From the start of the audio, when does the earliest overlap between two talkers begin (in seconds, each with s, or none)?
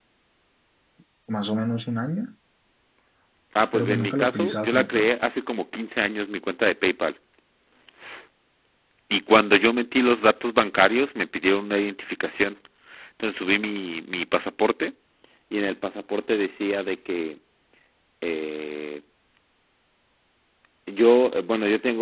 3.7 s